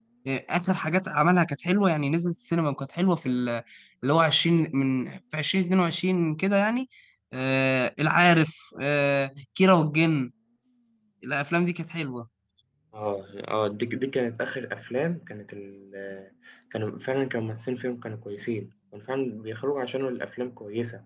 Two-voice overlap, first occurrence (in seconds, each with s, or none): none